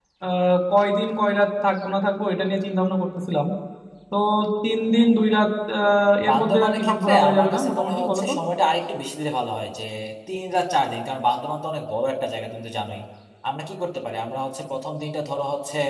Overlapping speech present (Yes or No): Yes